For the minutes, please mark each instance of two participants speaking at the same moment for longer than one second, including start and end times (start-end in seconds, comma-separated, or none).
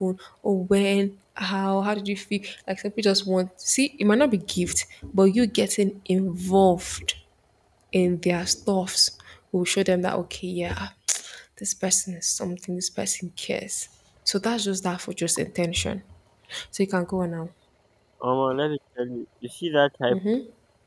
none